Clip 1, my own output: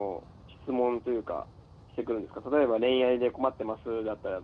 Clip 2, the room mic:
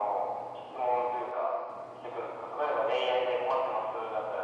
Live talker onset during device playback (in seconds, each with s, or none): none